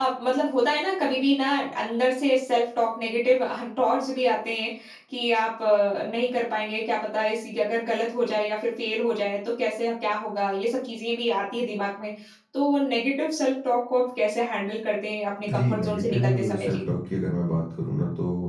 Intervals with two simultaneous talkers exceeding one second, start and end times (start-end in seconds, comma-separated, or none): 15.5-16.8